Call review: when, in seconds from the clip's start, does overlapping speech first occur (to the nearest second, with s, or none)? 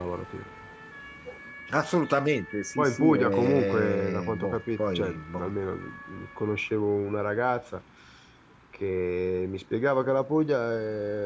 3 s